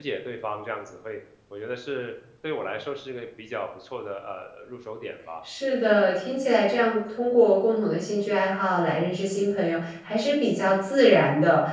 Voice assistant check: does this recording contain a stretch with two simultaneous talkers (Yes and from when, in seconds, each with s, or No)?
No